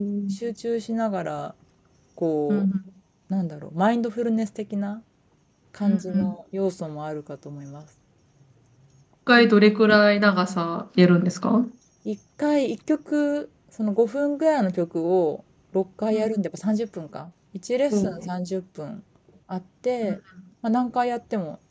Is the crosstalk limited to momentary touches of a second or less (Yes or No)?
Yes